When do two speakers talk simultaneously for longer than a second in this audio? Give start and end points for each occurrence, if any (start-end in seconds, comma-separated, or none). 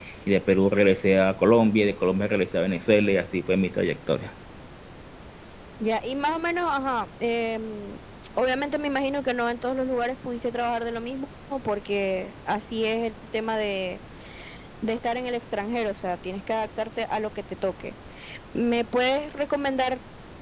none